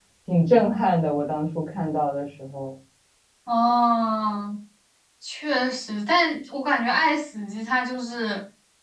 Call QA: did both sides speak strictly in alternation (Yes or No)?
Yes